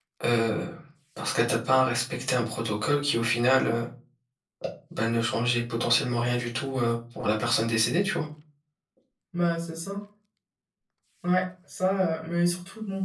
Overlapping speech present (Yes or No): No